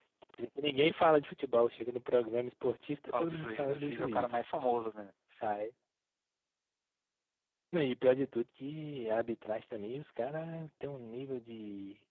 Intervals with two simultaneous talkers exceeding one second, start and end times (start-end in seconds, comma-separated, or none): 3.1-4.4